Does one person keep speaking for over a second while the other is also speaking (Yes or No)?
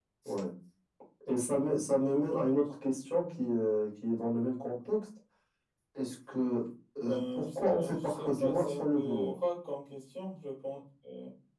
Yes